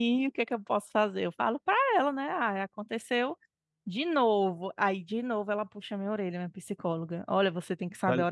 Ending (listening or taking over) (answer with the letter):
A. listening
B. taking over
A